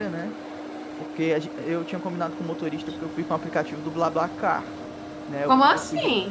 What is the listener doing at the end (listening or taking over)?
listening